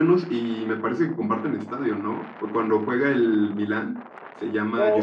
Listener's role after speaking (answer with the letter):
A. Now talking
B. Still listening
A